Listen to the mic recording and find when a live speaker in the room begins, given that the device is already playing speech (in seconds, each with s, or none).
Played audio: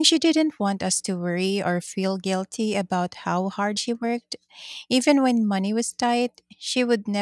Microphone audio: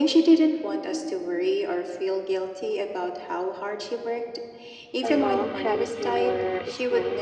5.0 s